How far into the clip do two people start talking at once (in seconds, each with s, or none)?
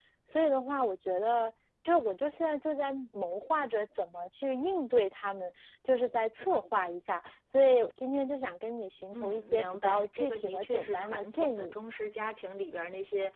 9.1 s